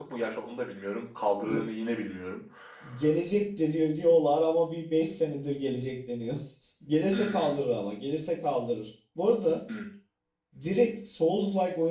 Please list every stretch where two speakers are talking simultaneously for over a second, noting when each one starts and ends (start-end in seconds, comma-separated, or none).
none